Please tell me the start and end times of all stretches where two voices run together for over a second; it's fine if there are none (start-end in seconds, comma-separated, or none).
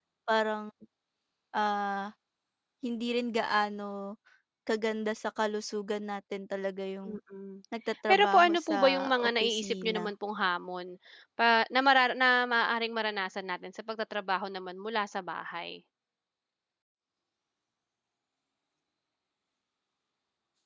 8.1-10.1